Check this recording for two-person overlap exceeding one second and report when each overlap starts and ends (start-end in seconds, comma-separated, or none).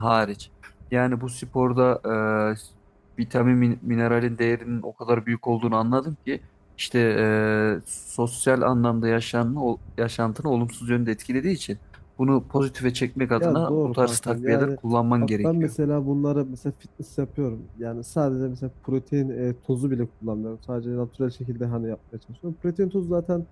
13.4-14.7